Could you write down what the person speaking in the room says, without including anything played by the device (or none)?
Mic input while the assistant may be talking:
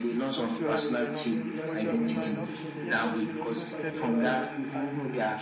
there's uh, there has to be open communication there because it leads to fight whereby